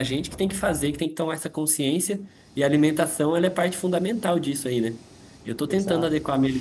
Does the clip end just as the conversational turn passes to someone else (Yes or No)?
No